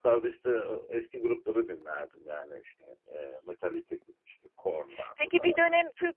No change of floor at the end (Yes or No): No